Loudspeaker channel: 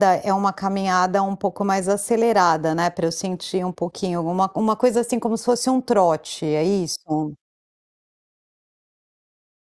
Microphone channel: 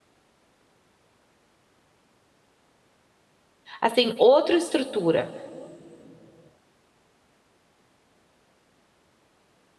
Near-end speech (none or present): present